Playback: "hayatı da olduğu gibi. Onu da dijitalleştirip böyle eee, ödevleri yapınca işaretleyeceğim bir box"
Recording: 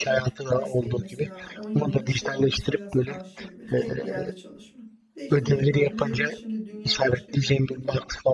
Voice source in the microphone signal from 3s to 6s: both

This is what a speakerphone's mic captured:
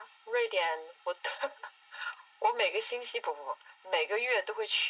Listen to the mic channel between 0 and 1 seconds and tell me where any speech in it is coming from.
echo only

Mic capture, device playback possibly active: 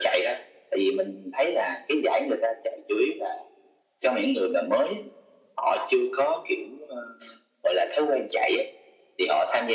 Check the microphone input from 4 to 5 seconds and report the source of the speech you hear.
echo only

